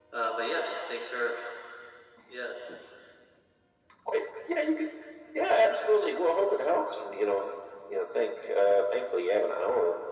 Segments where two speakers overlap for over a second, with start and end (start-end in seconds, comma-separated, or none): none